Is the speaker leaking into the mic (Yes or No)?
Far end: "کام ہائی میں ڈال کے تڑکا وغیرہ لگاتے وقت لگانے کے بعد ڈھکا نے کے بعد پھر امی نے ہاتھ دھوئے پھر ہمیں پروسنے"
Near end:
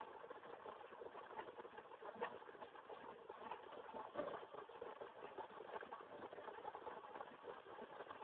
No